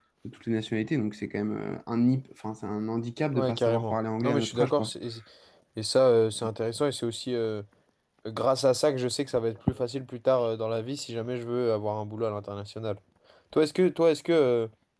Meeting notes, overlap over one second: present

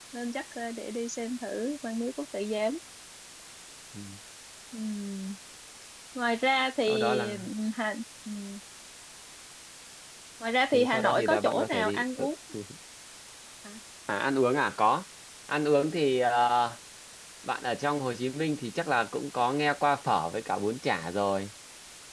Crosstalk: present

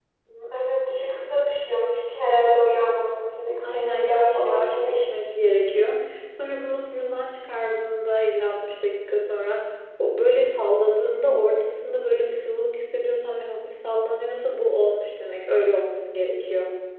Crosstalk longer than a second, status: present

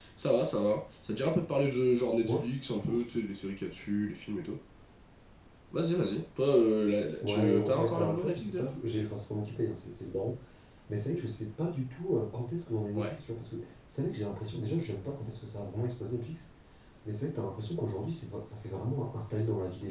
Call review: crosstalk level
present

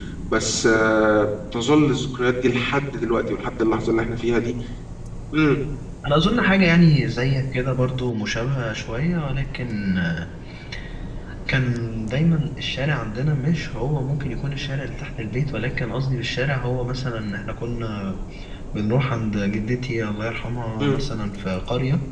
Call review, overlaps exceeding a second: none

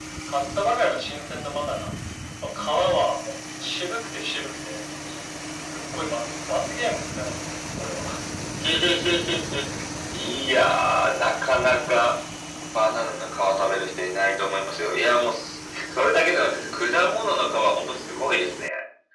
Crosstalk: none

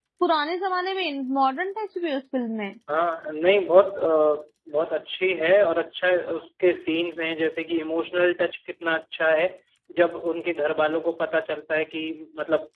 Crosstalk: none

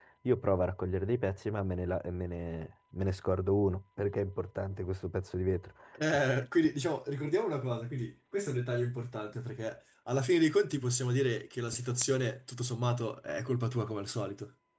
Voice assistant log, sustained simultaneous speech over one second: none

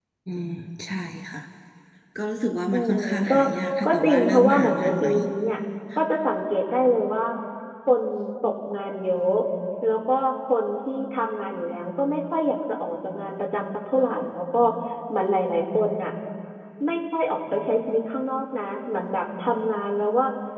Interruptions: present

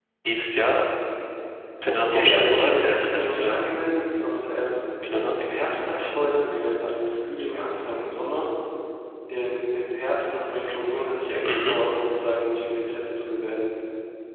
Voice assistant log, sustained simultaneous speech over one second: present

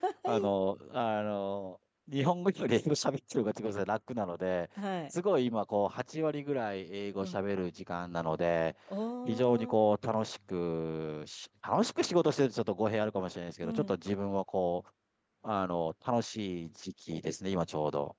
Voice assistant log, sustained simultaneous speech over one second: none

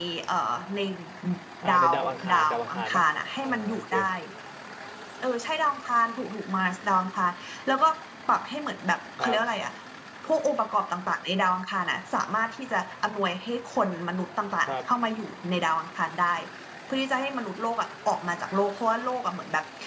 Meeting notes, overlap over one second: present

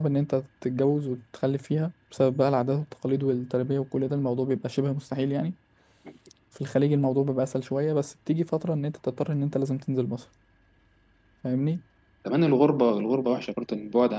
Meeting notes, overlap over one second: none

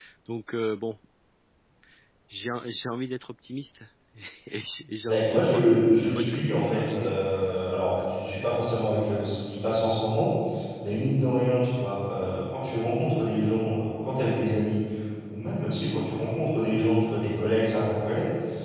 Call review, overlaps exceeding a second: present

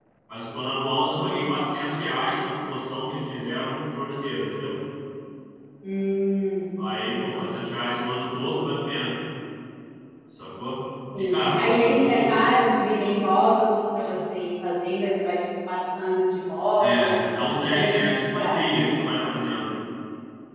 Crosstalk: present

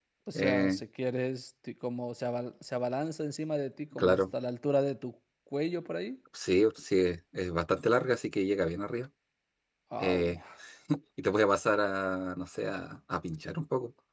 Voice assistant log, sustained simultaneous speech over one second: none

